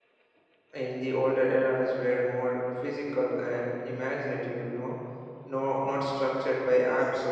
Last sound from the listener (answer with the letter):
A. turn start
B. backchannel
B